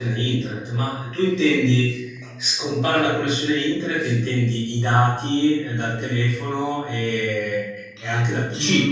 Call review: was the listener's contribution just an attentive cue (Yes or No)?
No